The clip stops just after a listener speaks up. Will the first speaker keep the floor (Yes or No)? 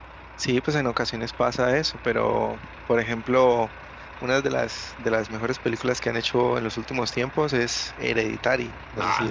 No